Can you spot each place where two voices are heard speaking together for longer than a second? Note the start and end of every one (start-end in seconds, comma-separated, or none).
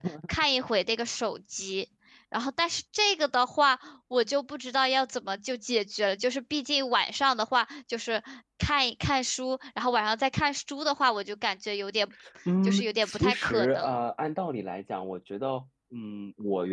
12.6-14.0